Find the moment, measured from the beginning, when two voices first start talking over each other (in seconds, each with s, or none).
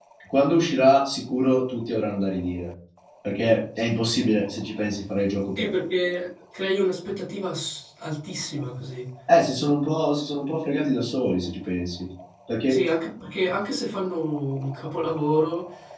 none